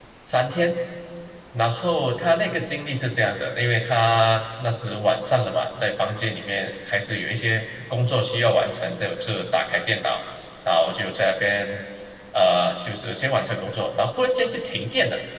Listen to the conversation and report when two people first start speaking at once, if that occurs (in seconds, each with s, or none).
none